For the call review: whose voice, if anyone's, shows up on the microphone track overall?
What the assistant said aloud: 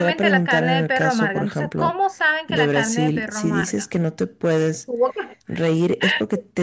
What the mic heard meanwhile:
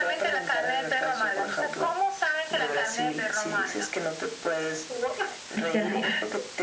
both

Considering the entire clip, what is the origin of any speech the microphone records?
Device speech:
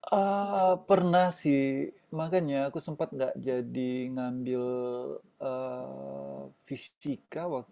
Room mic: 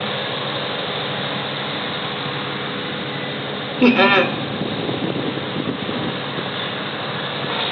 user only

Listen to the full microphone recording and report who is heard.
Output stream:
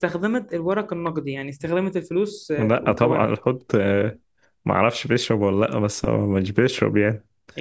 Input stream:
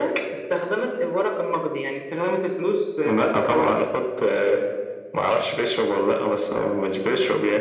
echo only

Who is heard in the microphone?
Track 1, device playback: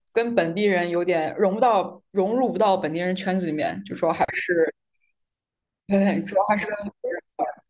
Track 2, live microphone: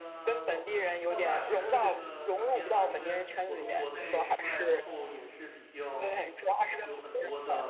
both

